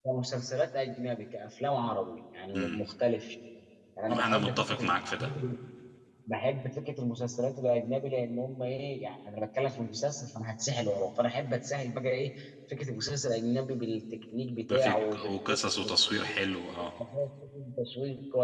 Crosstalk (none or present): present